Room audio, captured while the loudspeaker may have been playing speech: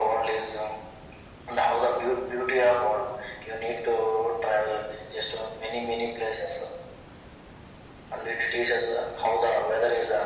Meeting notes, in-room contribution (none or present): none